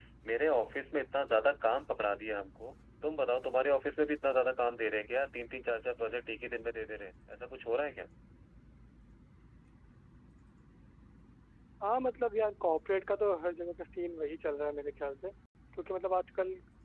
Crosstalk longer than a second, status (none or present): none